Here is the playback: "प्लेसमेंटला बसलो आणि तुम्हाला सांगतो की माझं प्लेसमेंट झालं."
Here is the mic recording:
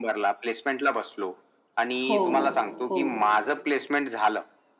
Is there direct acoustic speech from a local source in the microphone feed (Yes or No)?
Yes